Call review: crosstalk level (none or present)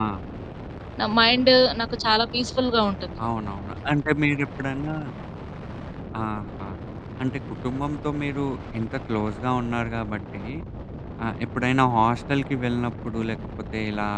none